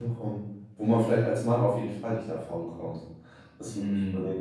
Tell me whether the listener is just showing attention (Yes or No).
No